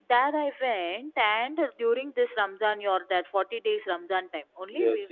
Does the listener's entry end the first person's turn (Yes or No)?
Yes